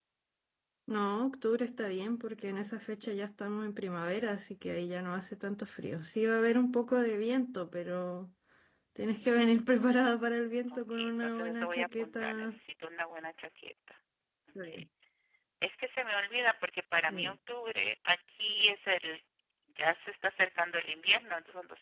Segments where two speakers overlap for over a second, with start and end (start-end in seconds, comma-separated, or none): 10.9-12.5